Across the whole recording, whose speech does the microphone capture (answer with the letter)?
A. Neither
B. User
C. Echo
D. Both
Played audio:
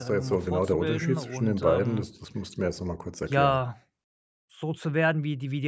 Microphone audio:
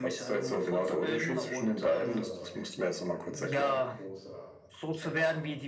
D